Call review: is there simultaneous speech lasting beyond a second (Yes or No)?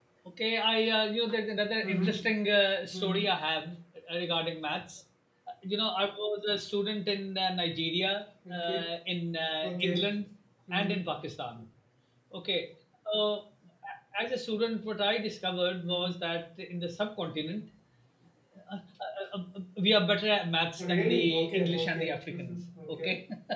Yes